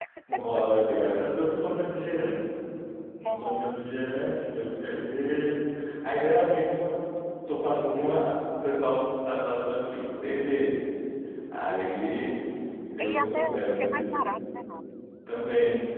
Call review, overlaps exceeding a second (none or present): present